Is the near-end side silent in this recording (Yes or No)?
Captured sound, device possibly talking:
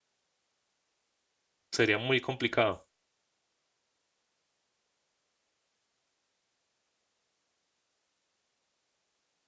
No